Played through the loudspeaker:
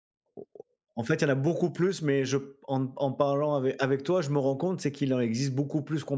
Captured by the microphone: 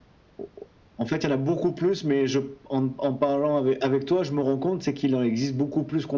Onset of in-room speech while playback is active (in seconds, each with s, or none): none